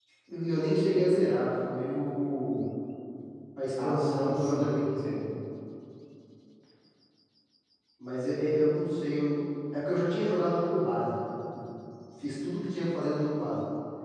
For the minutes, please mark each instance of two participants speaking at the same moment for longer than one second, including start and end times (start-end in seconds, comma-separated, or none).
3.8-5.0